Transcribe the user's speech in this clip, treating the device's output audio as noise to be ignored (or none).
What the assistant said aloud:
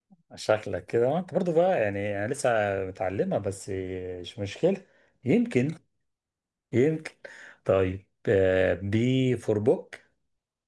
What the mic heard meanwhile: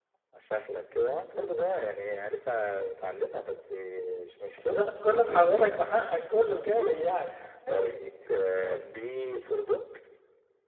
بتاخد كل محاولاتك بحقك كله كامل يعني ماشي